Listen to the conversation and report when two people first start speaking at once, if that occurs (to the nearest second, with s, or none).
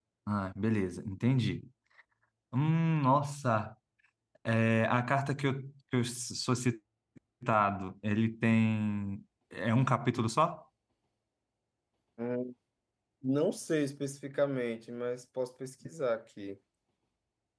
none